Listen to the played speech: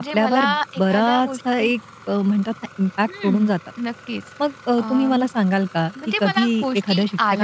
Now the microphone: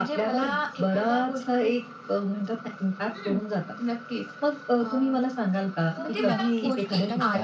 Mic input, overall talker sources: both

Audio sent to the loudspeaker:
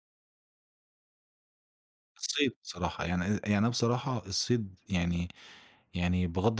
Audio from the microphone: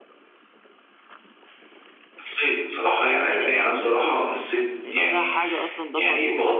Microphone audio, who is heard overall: both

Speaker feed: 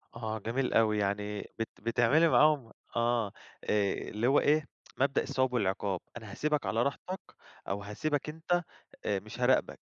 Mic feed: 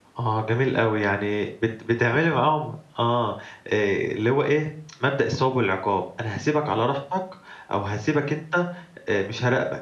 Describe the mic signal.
echo only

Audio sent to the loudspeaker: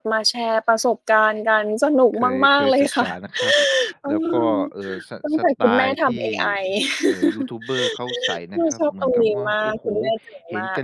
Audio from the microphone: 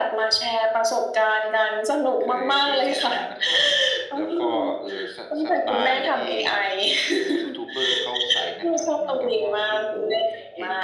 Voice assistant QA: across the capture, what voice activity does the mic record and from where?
echo only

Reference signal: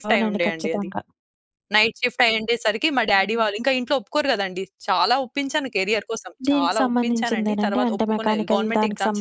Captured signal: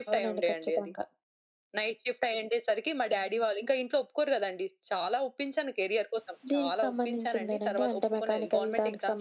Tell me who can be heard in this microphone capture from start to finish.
echo only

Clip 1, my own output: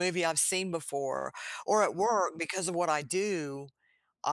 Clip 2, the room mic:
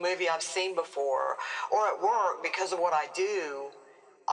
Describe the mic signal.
echo only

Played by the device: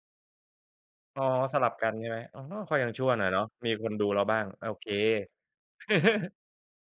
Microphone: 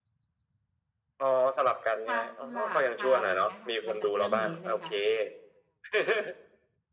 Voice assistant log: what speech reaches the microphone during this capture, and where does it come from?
both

